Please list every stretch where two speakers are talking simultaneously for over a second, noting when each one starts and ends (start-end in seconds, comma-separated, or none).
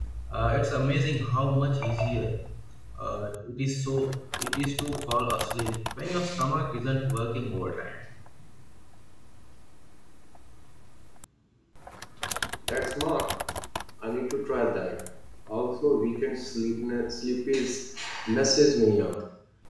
none